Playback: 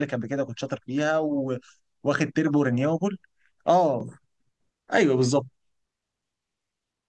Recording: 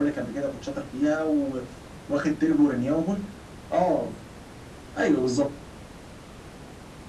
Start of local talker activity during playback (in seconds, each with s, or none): none